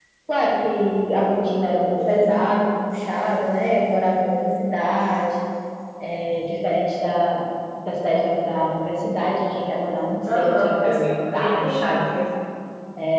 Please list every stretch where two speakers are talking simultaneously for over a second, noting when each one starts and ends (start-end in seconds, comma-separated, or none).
10.3-12.0